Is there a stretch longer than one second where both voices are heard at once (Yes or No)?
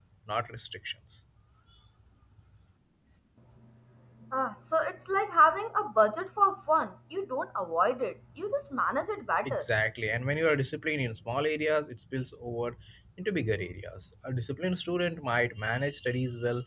No